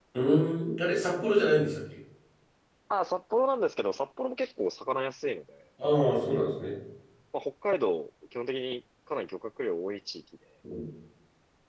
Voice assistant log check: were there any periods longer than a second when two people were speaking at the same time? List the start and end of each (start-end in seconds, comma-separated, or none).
none